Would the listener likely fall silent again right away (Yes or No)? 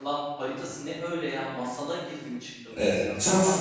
No